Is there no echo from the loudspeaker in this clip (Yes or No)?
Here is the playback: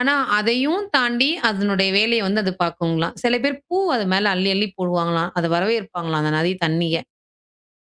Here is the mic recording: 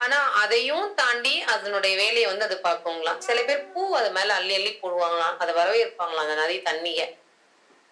No